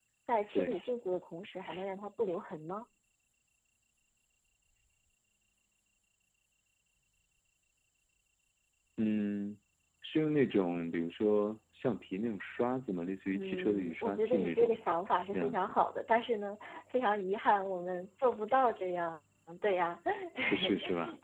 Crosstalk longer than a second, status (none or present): present